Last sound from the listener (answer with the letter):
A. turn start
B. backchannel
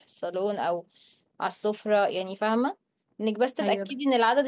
B